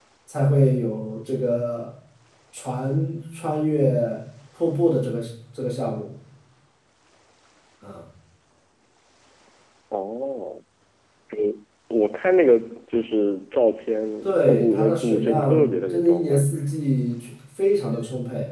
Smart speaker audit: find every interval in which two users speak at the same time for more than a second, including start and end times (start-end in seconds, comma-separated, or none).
14.2-16.5